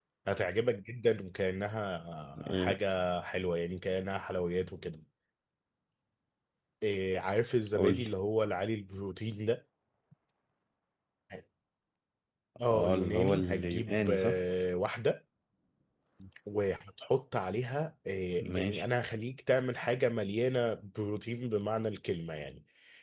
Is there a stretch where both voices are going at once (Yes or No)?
Yes